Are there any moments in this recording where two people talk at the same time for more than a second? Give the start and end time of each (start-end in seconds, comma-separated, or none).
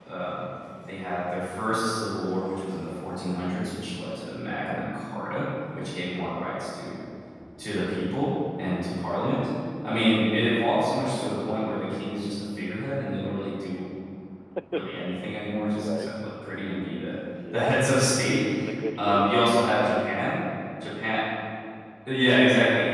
none